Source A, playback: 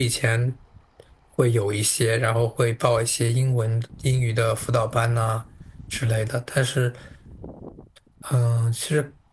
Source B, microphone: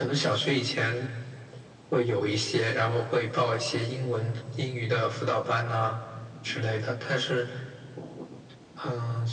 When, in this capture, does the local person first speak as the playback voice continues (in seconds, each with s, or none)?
none